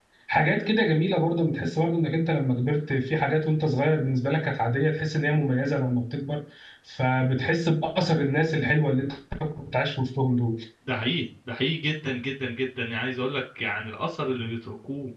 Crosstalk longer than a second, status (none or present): none